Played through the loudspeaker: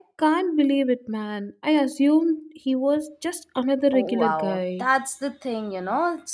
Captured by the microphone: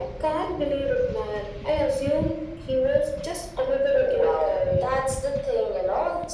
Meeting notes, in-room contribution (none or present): none